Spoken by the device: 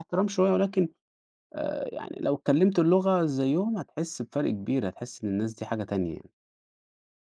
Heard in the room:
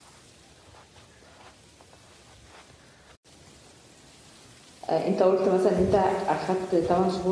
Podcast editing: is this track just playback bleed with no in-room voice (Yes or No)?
No